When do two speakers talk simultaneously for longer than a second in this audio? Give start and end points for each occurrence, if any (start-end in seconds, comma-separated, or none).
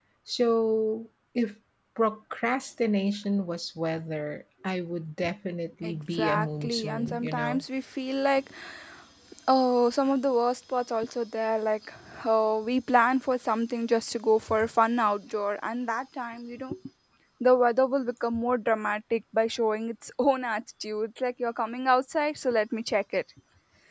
5.8-7.6